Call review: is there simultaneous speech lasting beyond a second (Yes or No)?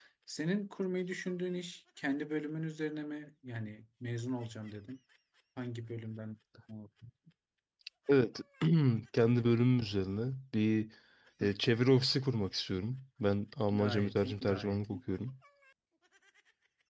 Yes